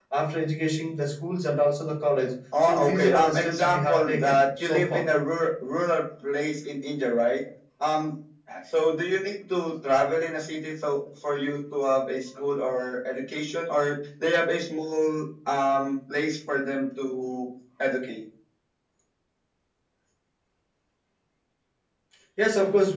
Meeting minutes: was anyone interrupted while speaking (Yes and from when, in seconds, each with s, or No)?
Yes, from 2.5 s